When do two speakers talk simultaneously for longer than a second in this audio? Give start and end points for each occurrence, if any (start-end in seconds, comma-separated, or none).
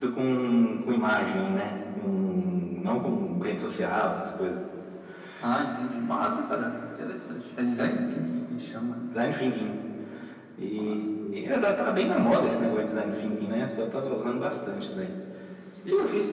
none